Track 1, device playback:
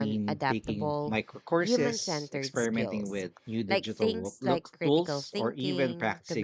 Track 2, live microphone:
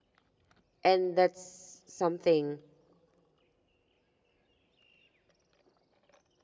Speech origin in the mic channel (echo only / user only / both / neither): user only